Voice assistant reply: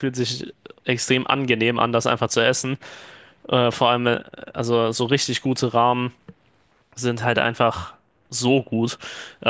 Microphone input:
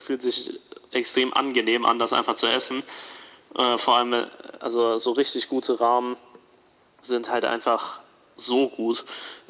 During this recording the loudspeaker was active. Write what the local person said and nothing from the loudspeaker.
none

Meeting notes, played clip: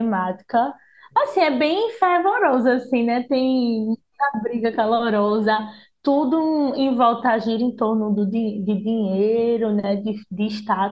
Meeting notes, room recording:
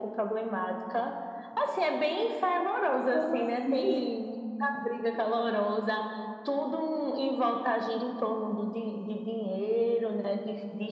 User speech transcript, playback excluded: como assim?

